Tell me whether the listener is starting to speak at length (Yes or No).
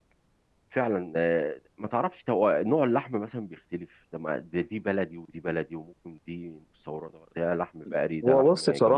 Yes